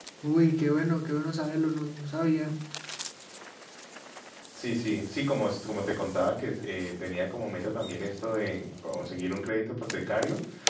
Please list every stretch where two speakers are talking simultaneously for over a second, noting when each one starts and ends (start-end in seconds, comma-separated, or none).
none